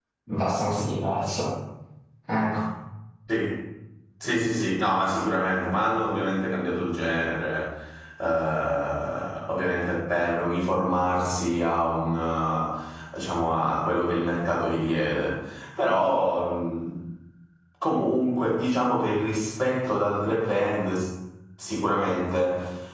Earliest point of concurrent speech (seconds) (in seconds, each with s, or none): none